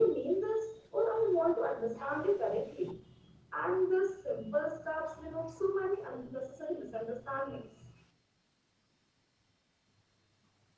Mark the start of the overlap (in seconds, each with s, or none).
none